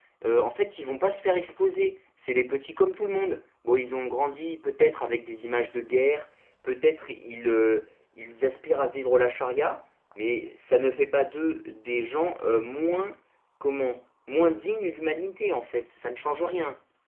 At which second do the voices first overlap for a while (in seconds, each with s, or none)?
none